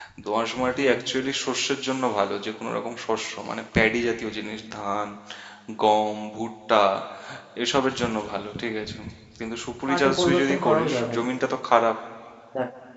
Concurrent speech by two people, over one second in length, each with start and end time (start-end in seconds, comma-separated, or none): 9.9-11.2